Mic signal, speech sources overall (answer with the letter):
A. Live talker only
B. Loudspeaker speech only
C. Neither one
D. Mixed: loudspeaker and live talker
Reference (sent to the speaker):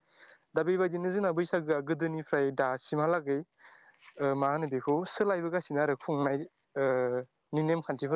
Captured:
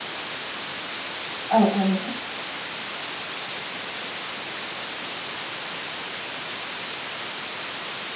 A